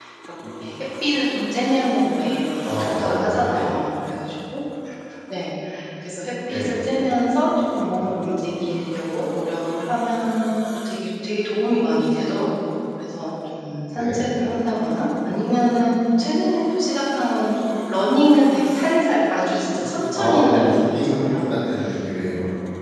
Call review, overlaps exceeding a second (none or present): present